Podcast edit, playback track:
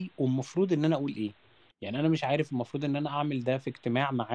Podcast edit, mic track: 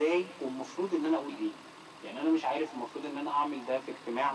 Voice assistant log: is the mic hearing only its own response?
Yes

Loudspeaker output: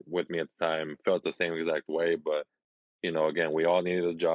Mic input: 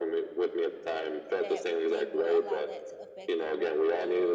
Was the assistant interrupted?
Yes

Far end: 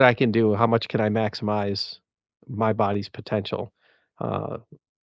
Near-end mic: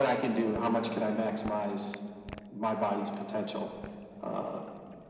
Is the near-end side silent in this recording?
Yes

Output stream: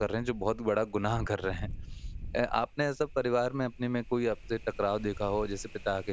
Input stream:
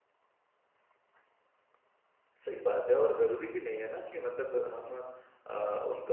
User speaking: Yes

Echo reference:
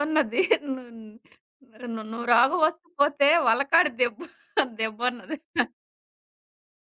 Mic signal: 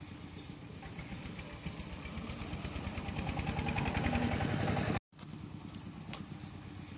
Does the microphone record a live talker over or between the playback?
No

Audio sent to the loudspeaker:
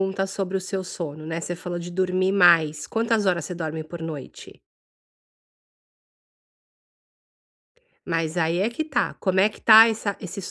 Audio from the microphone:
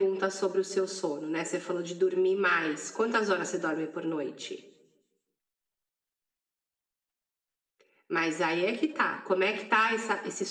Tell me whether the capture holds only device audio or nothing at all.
Yes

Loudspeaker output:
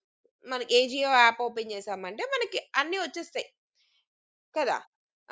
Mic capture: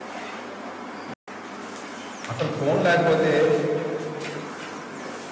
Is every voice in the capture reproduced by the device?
No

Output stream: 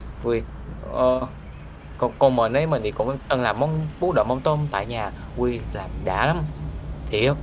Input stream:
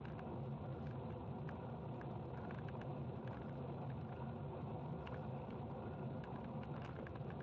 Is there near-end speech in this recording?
No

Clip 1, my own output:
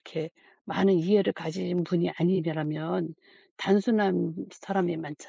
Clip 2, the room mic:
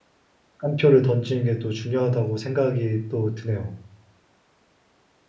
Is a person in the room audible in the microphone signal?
Yes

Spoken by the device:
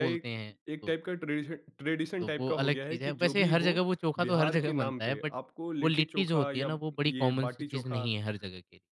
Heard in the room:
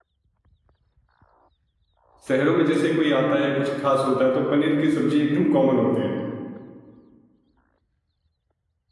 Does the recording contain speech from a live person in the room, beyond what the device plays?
Yes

